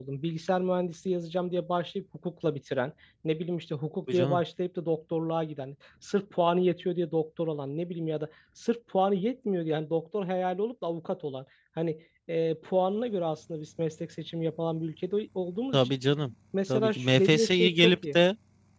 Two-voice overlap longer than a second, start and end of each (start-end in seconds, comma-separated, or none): 16.7-18.2